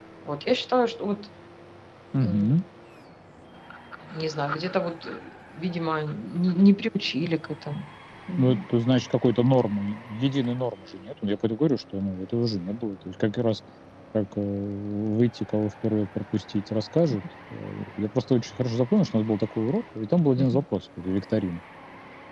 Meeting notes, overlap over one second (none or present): none